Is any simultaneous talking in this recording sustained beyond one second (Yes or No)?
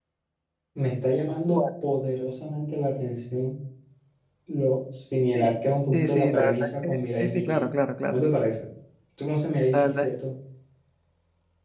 Yes